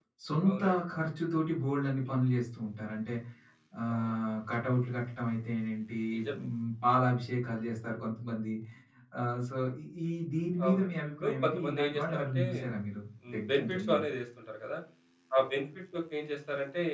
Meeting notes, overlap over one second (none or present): present